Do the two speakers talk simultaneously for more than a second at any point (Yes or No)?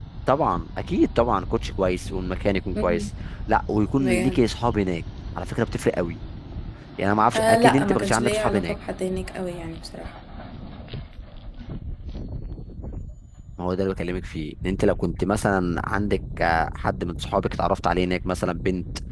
Yes